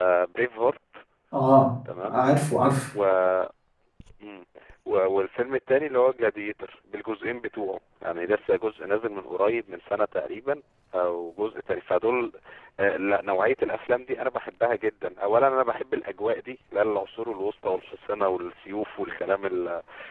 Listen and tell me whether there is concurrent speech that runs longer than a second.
No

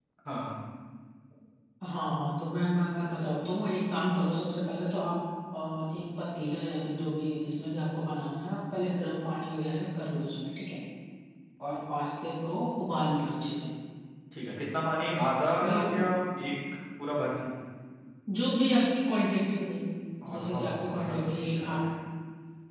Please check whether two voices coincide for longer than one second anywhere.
Yes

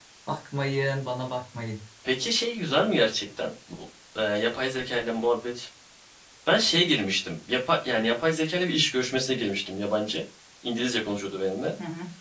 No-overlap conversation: Yes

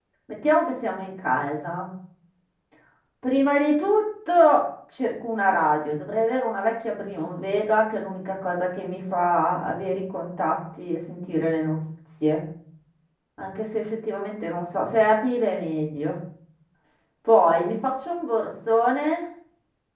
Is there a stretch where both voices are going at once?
No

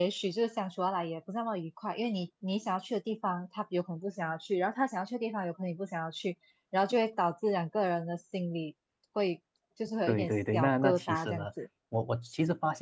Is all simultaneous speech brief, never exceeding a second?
No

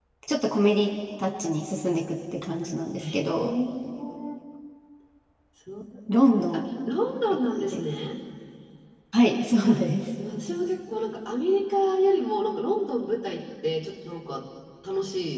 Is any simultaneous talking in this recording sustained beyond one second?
No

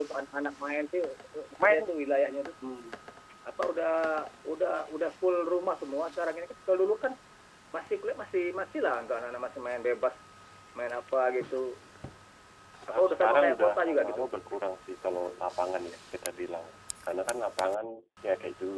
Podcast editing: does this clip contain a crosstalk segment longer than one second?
Yes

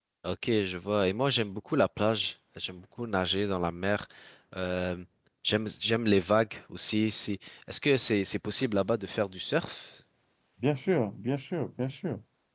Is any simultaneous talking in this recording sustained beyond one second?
No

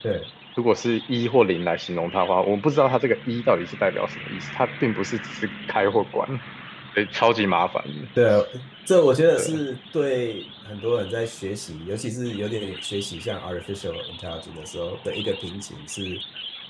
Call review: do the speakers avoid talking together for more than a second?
Yes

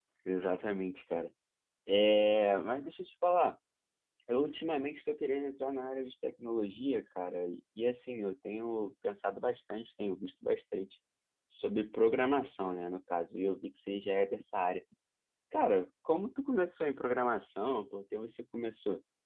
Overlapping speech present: No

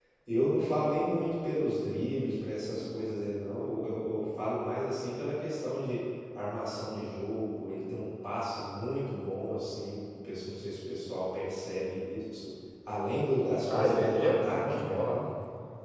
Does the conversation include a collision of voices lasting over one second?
Yes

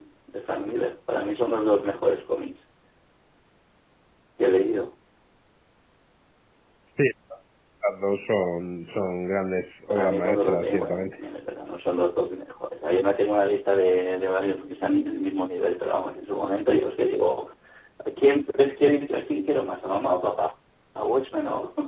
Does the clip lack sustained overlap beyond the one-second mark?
No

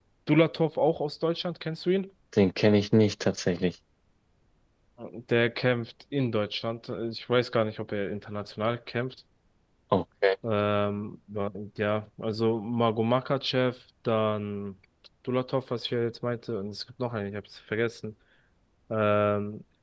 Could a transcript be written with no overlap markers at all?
Yes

